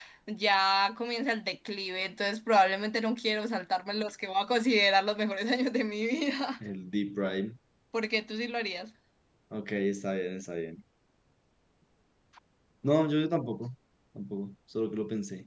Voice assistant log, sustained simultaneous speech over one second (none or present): none